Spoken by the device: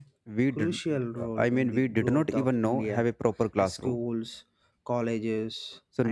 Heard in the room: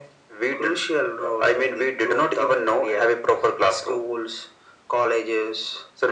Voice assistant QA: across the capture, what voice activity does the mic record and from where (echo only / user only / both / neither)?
echo only